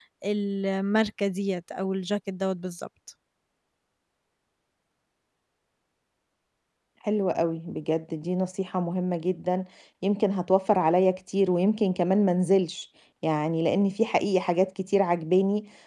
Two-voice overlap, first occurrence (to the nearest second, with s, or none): none